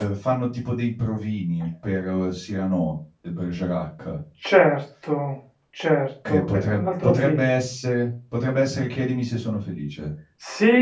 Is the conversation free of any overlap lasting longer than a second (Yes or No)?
No